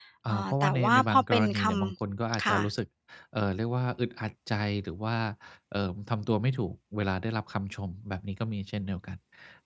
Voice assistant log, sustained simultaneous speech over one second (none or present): present